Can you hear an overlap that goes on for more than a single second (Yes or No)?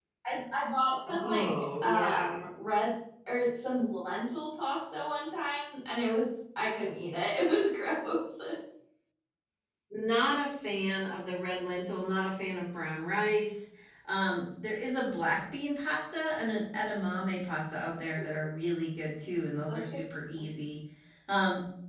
Yes